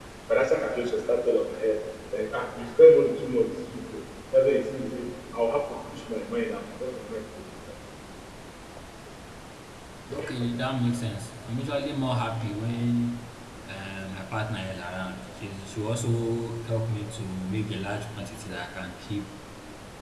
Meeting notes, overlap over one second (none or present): none